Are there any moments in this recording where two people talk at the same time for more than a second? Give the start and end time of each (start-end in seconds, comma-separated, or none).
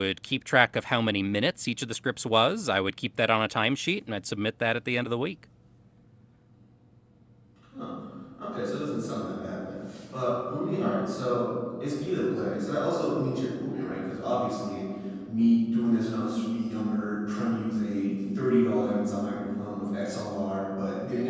none